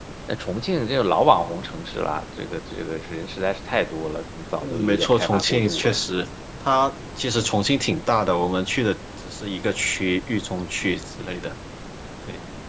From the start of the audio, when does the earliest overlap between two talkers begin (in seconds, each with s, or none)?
4.6 s